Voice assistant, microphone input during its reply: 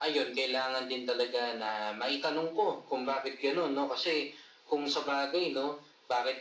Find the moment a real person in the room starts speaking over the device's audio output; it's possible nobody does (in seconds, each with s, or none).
none